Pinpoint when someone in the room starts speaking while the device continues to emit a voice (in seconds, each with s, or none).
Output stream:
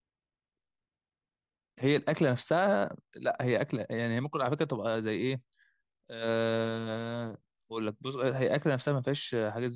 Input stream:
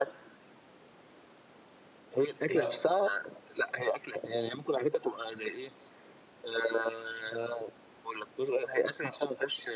2.5 s